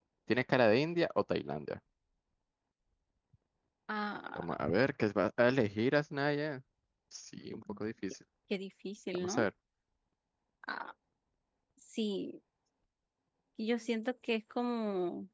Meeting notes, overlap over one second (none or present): none